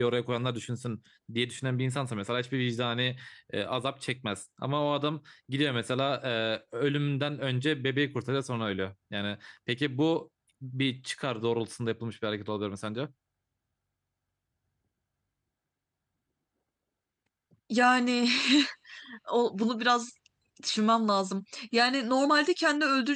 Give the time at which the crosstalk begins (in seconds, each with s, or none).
none